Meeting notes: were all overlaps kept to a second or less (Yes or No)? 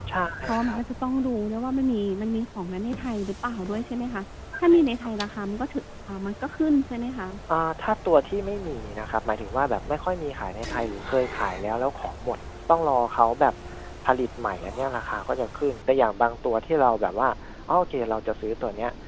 Yes